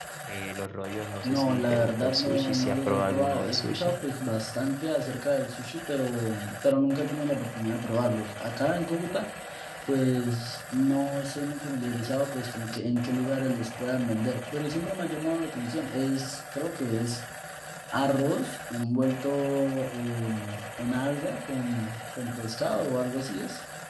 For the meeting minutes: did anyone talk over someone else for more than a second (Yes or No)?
Yes